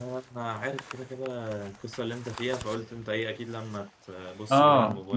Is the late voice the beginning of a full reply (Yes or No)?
Yes